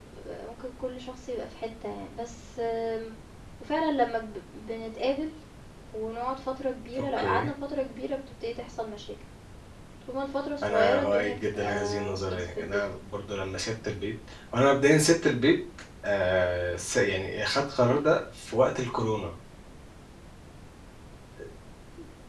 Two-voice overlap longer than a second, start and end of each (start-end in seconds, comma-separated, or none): 10.6-12.8